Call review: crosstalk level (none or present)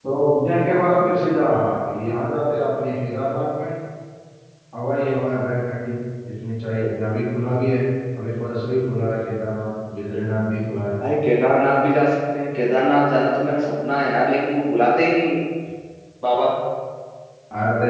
none